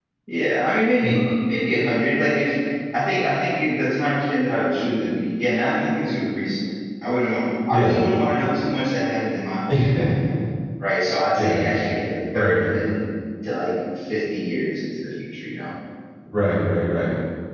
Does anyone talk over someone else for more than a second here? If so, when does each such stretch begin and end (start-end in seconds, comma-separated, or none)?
none